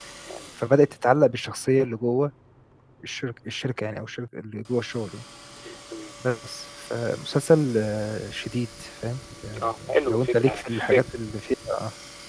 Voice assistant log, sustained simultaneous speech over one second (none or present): present